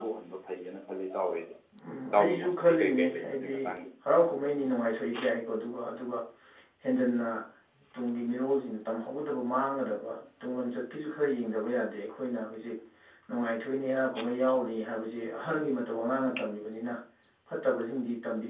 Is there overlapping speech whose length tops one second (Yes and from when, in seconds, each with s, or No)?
Yes, from 2.2 s